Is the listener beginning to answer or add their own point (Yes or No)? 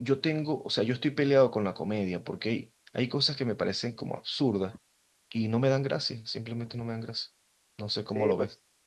Yes